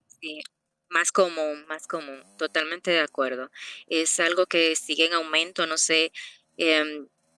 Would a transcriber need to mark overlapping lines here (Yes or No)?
No